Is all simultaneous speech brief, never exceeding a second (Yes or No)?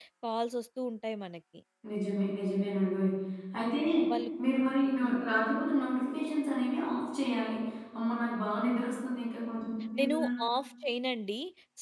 Yes